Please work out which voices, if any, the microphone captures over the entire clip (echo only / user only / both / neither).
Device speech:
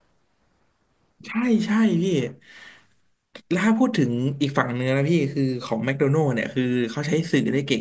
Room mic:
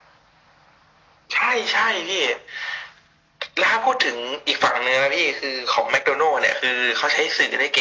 echo only